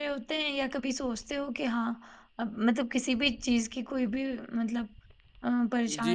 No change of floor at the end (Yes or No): No